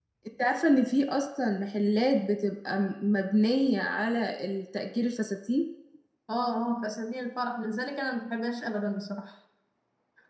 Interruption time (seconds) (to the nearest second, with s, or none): none